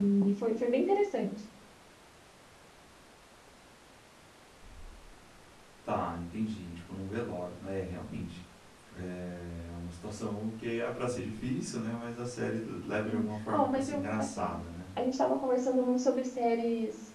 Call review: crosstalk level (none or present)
present